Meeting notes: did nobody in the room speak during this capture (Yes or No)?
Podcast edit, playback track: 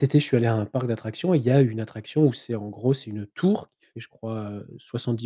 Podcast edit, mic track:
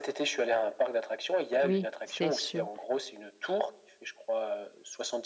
No